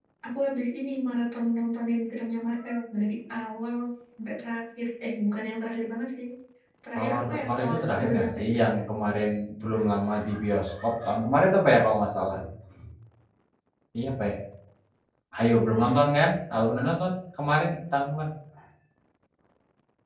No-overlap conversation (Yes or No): No